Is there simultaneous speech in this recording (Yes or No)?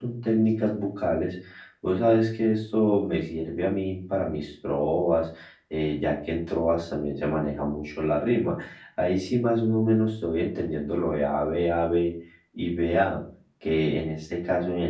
No